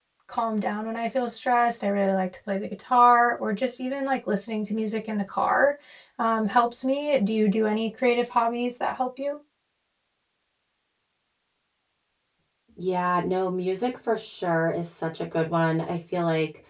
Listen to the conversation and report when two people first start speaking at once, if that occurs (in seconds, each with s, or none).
none